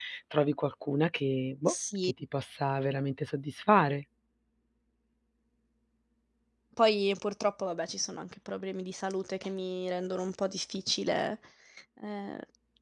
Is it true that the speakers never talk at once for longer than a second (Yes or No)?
Yes